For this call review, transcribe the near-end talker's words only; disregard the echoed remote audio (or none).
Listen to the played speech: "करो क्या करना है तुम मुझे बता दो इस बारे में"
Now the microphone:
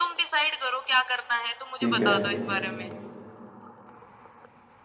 ठीक है